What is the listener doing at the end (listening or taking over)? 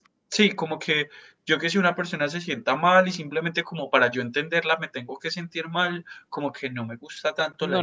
taking over